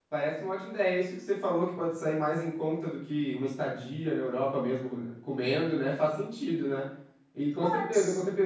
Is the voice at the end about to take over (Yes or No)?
No